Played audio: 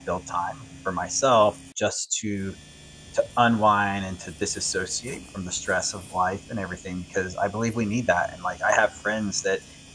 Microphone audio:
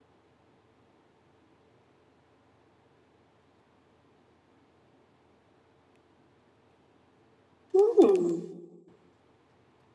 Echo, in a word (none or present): none